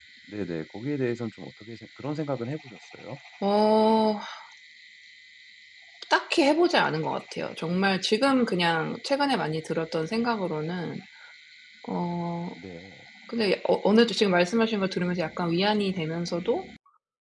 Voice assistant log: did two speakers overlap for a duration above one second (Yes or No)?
No